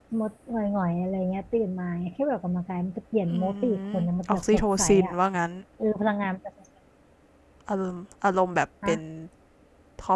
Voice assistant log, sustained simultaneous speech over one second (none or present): present